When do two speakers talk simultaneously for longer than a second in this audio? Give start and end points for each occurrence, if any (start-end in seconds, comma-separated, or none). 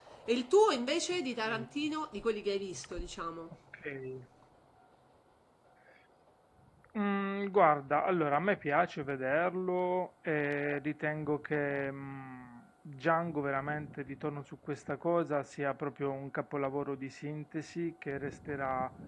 none